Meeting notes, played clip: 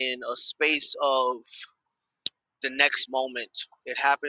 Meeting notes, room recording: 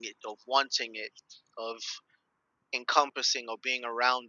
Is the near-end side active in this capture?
Yes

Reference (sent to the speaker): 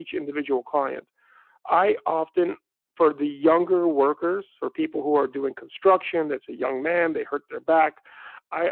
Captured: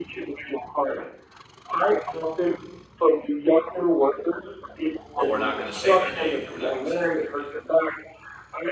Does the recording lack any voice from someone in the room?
No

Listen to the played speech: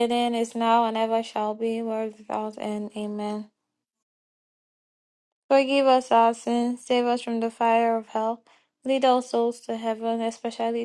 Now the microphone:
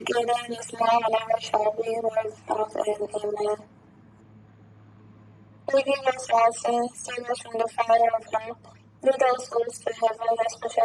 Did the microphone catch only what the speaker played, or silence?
Yes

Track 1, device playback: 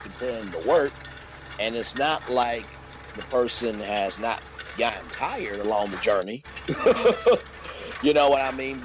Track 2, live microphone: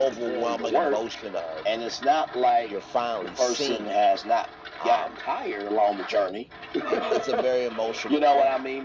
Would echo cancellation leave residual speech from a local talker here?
Yes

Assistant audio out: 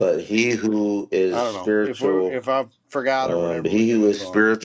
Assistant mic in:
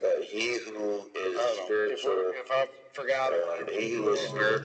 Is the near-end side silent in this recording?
No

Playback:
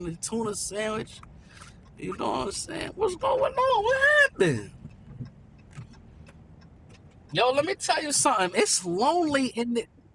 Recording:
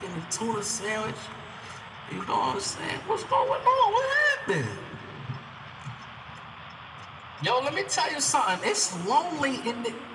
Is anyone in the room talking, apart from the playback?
No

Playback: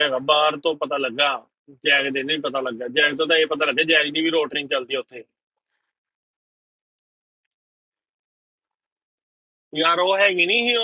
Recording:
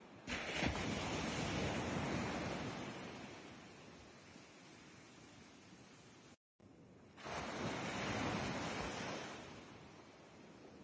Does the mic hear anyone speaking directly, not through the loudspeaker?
No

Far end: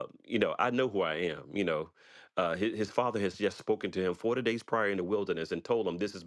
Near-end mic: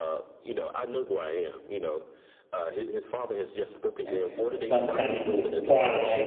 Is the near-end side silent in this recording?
No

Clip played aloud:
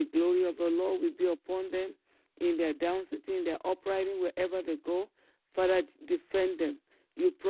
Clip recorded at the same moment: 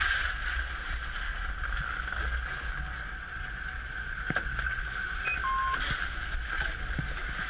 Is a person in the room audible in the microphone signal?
No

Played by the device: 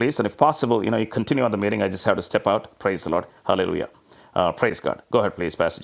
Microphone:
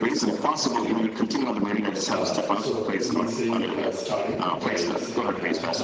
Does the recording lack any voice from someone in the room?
No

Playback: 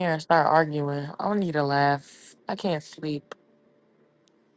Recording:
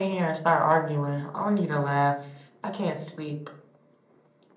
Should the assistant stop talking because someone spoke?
No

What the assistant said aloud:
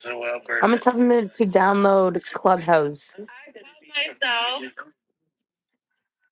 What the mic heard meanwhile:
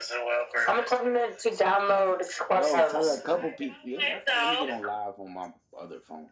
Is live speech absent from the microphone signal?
No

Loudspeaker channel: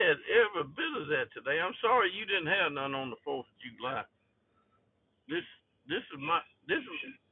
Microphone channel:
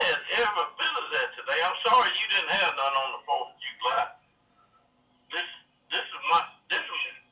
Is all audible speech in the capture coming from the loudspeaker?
Yes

